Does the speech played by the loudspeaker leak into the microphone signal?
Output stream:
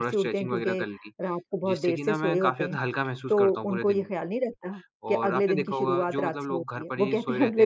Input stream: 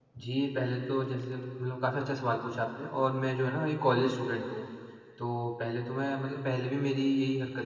No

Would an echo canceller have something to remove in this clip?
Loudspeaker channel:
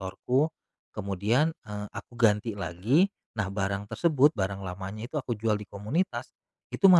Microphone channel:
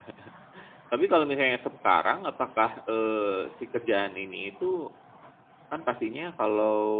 No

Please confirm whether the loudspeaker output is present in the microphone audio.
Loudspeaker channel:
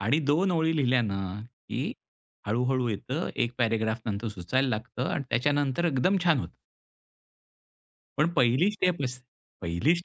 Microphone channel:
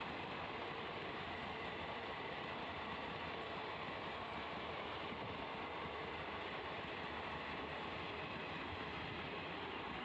No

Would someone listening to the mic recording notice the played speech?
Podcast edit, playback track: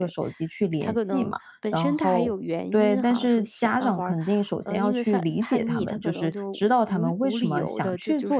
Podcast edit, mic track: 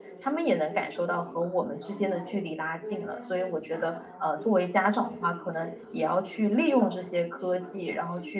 Yes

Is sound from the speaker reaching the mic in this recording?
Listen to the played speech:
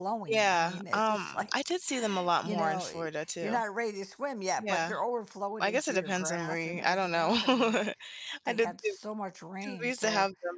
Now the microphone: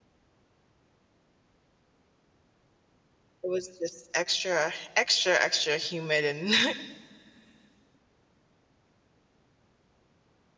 No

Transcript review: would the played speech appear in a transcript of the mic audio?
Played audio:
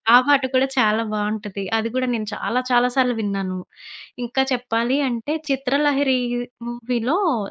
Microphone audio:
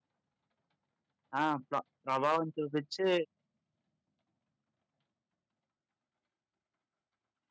No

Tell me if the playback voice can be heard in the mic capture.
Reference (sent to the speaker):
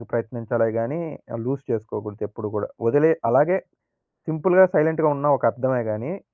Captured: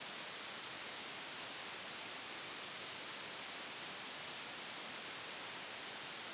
No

